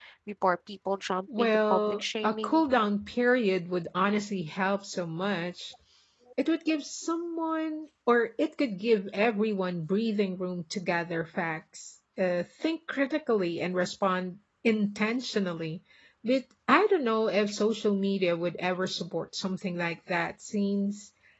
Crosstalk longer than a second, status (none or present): present